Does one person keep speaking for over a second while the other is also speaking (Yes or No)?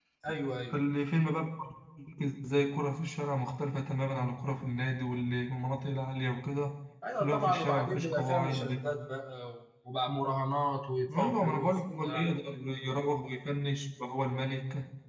Yes